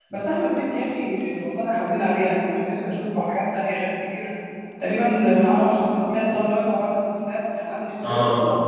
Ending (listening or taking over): taking over